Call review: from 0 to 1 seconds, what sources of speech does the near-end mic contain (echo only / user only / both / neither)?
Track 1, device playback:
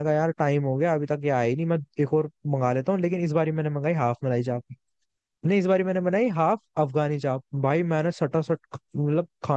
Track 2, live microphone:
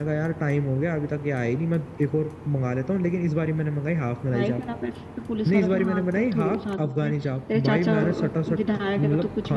echo only